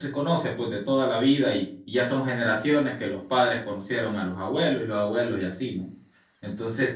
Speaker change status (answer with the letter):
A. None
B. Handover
A